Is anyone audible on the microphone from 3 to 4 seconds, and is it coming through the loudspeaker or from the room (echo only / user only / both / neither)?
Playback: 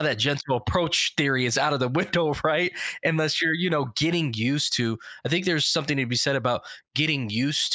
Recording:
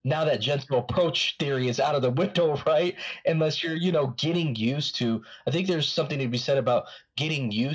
echo only